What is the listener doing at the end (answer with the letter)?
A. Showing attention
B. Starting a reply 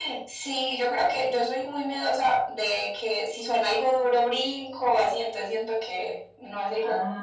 B